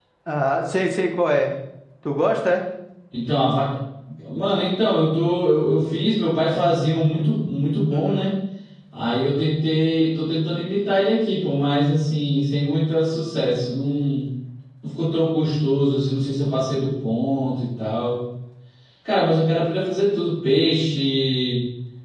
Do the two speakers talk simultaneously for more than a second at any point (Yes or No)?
No